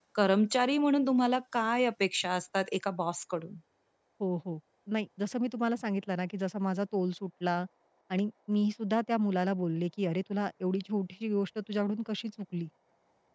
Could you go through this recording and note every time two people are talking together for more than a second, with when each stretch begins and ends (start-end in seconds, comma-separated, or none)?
none